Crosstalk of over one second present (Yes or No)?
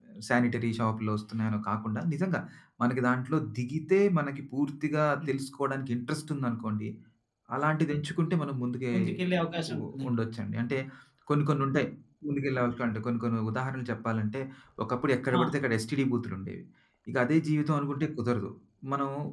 No